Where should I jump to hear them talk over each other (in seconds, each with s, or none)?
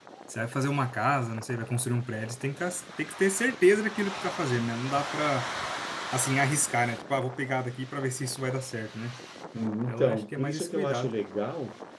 9.9 s